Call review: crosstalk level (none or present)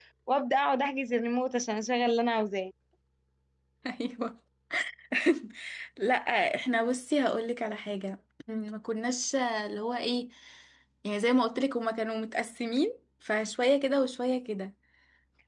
none